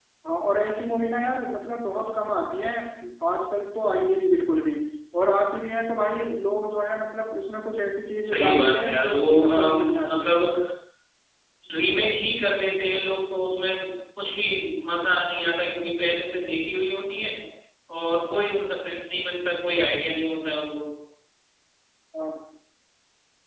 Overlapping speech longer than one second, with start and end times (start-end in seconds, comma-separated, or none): 8.3-10.3